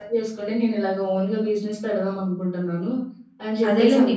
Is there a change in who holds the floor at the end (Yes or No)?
Yes